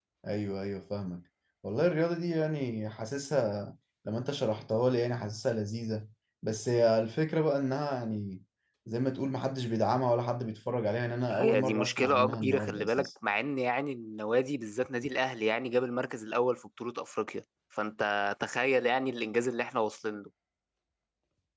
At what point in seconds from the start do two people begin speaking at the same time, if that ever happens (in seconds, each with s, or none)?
11.3 s